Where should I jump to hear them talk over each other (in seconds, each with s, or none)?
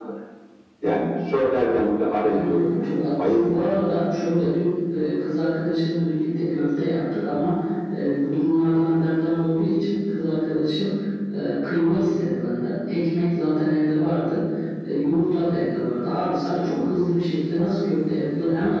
2.2 s